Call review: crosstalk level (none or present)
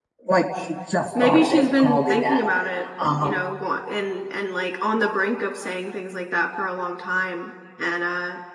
present